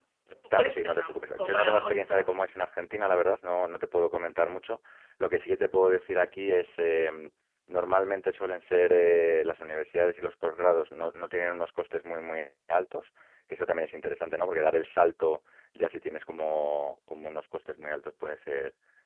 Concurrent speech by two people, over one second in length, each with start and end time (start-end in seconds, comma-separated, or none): 0.5-2.3